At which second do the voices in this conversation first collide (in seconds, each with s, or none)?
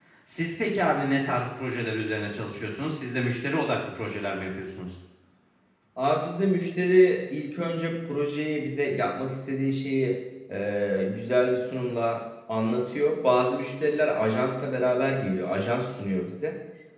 none